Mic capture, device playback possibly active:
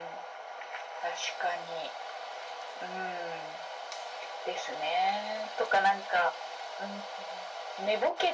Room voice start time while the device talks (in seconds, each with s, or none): none